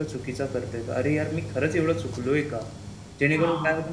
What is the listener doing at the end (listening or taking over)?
listening